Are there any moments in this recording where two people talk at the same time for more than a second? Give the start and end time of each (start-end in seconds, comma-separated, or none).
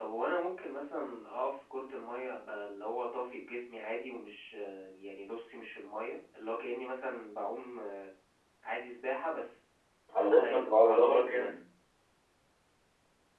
10.4-11.6